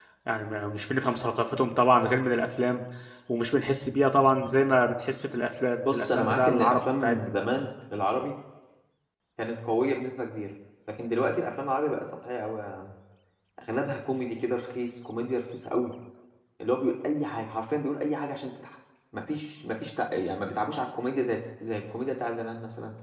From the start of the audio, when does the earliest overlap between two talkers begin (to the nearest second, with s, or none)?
6 s